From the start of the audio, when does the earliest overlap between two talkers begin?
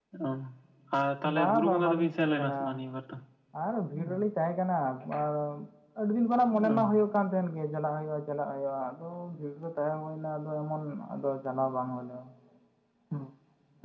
1.2 s

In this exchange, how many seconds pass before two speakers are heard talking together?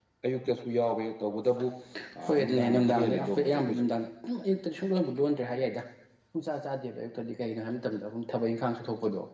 2.2 s

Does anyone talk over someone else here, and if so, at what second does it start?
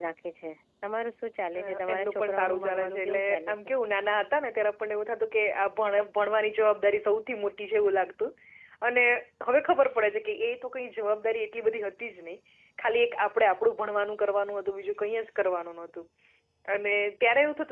1.6 s

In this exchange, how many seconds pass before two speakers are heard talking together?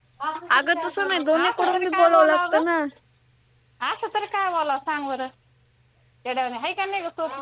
0.6 s

